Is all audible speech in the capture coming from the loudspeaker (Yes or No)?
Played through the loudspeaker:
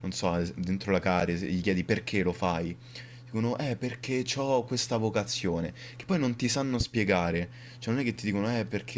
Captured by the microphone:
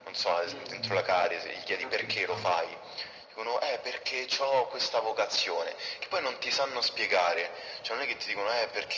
No